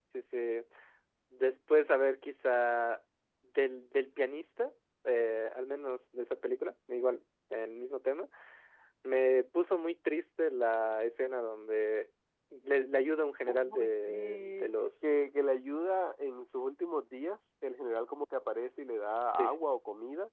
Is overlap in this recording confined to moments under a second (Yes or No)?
No